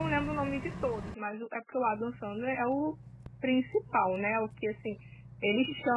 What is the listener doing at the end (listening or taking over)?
taking over